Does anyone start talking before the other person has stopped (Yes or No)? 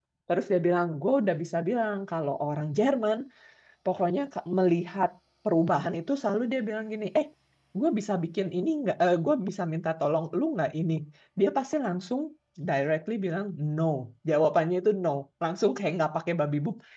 No